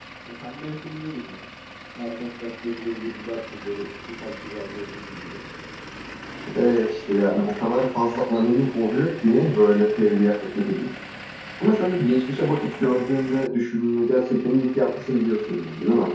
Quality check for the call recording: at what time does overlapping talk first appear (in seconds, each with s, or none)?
none